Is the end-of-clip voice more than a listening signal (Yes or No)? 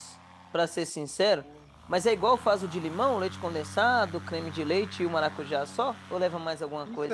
Yes